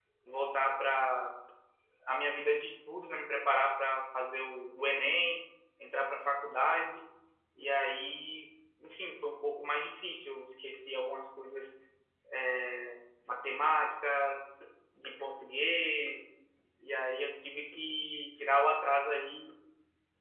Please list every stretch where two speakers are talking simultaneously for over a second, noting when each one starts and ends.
none

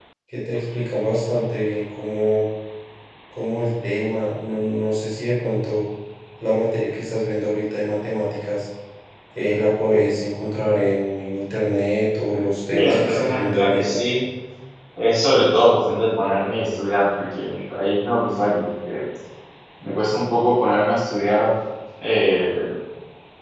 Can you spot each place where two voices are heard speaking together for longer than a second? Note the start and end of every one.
12.7-14.0

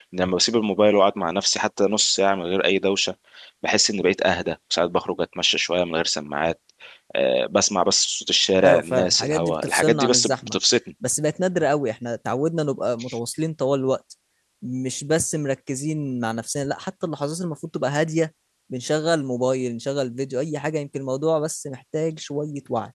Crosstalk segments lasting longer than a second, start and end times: 8.6-10.6

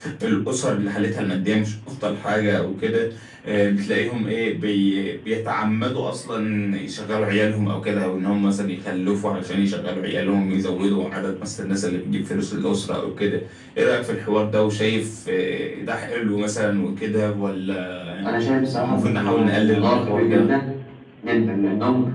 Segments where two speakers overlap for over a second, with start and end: 18.9-20.6

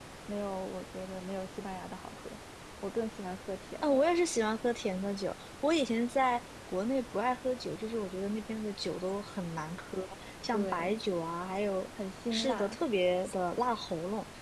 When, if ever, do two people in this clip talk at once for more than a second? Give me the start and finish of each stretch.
none

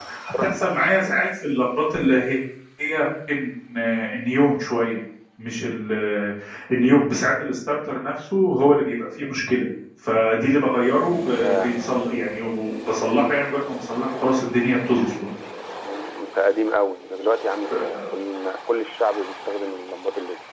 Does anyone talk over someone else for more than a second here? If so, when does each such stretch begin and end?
none

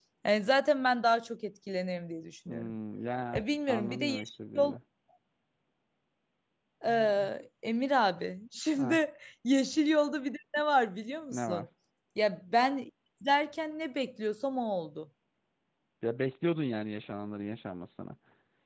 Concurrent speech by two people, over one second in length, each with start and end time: 3.3-4.8

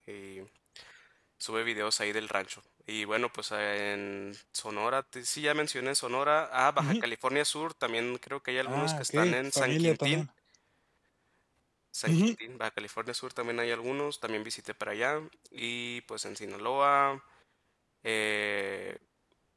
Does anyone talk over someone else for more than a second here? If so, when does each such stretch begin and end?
8.7-10.2

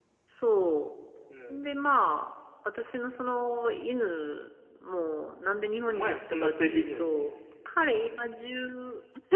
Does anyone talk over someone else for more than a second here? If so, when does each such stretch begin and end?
5.8-7.1

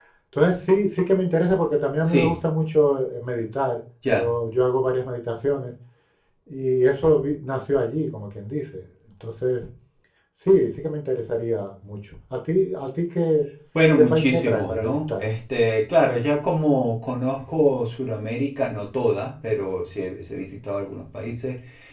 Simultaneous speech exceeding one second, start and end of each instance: 13.9-15.2

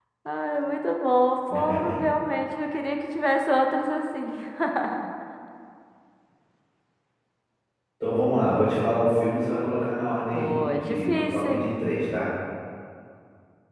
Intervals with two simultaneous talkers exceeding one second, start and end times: 10.3-11.7

